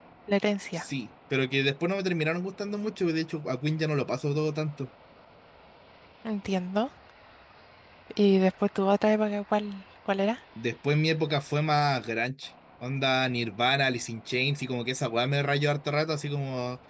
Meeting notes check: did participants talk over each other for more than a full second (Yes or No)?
No